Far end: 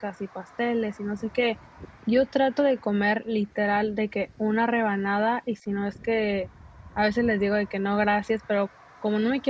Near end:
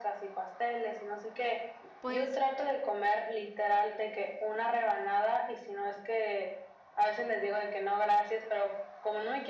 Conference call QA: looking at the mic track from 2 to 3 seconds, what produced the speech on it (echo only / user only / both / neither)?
both